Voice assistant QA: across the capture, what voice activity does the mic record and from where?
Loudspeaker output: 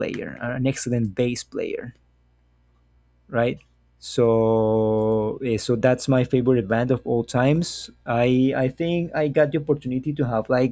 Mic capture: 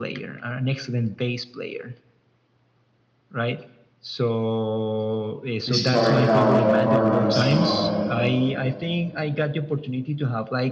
both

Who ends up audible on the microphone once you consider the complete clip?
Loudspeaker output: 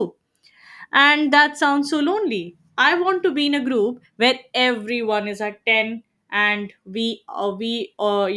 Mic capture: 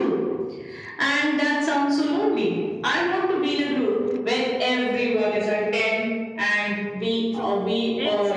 both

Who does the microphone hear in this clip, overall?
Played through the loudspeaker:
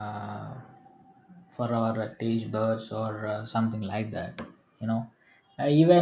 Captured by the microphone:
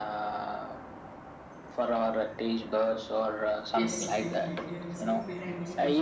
both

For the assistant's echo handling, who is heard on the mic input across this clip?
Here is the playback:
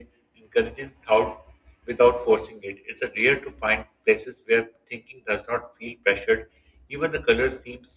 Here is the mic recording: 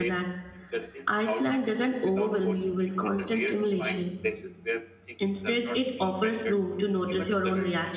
both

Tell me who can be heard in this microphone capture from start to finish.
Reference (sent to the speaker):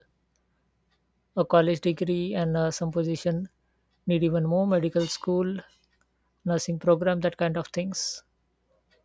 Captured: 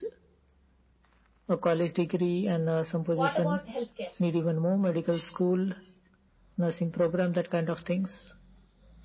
both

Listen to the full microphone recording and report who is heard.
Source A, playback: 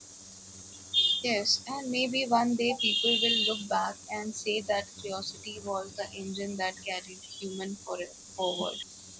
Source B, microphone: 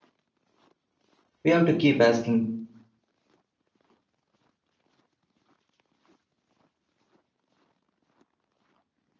user only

